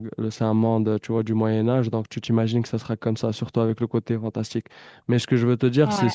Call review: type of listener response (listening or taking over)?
listening